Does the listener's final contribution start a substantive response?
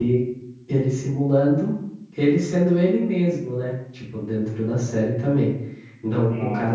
No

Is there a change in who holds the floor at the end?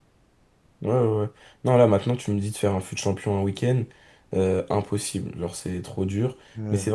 No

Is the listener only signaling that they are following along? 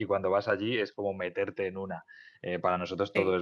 Yes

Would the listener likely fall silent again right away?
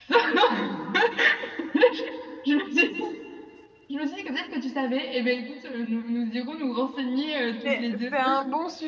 No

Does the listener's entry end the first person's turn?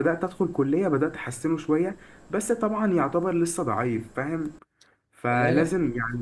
No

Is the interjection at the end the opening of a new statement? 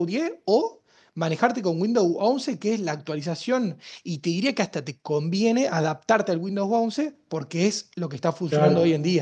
Yes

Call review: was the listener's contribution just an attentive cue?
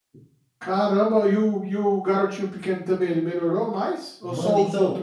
No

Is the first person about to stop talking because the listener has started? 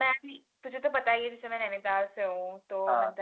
No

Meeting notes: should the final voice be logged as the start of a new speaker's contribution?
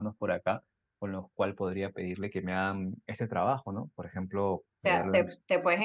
Yes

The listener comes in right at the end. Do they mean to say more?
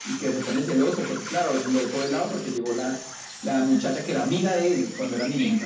Yes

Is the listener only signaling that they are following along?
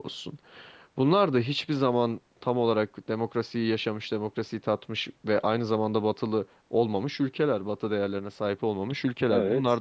Yes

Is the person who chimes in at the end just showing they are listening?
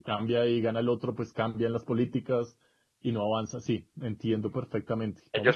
No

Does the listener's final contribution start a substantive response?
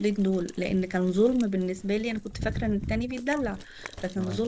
No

